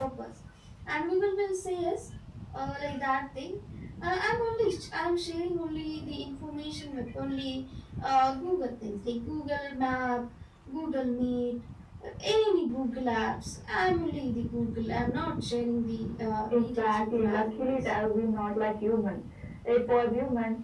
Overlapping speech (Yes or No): Yes